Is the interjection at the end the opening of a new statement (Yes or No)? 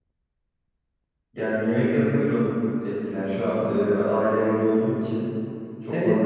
Yes